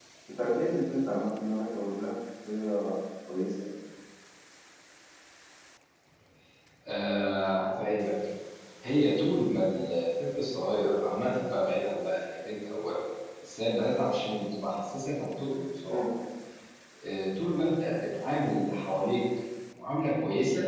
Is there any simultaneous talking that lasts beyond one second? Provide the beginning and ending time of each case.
none

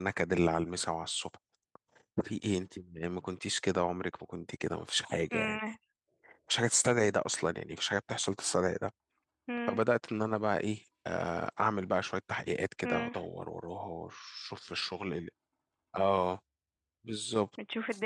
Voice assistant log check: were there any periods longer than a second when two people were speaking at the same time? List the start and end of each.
none

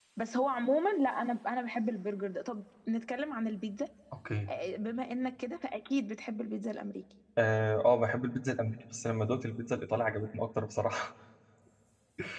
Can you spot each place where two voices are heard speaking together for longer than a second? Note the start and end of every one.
none

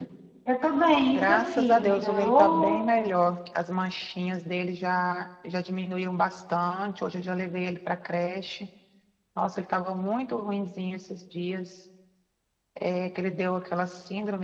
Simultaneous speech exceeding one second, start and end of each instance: 1.1-2.8

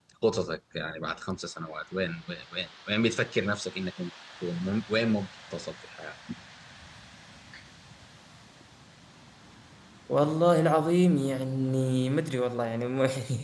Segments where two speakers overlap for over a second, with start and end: none

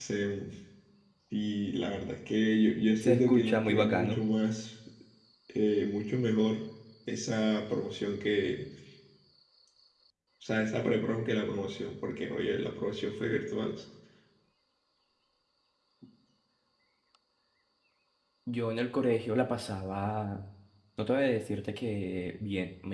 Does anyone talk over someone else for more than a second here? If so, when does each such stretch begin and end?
3.0-4.2

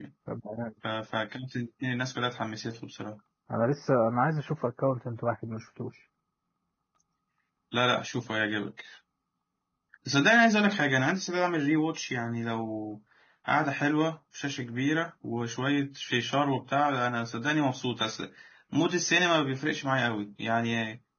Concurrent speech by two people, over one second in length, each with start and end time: none

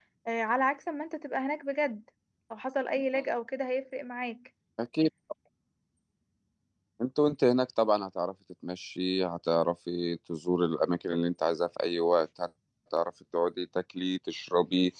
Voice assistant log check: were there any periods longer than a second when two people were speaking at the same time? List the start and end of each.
none

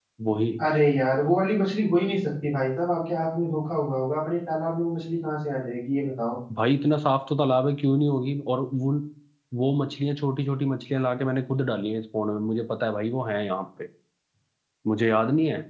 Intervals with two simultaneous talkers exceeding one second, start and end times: none

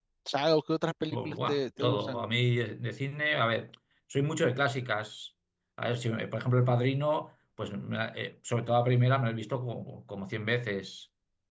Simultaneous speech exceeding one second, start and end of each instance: 1.1-2.3

